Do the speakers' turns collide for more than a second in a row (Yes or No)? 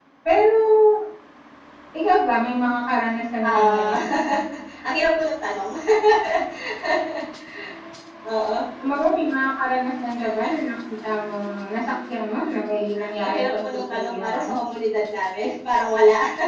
Yes